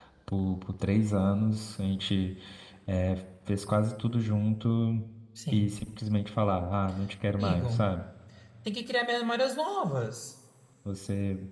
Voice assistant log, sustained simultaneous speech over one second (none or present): none